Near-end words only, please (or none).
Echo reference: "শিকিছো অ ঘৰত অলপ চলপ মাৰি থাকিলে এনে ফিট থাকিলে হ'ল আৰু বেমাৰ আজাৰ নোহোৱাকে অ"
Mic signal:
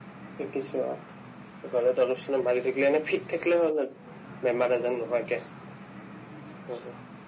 none